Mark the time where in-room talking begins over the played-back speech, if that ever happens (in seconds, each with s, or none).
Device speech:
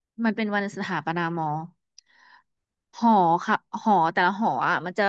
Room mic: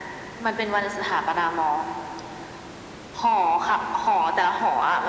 none